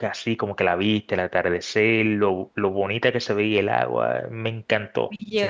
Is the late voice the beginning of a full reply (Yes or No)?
Yes